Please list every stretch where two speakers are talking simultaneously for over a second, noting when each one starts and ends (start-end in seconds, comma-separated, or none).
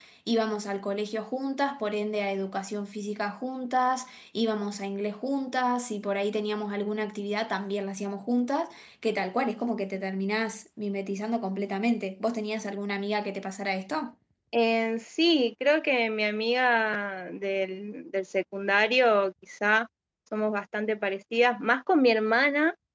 none